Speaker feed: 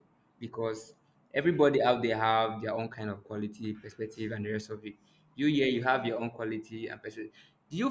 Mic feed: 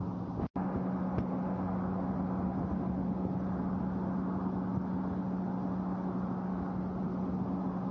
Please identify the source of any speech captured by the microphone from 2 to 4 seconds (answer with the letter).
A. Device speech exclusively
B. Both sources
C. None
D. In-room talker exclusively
C